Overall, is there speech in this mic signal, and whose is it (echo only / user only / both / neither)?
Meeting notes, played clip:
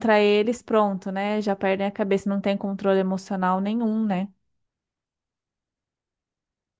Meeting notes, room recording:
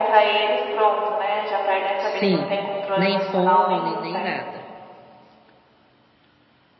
both